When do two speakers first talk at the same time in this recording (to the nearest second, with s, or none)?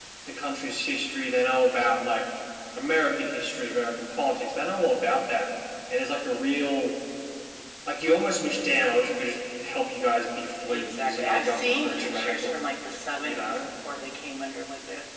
11 s